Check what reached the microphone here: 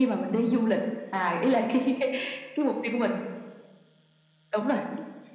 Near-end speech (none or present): none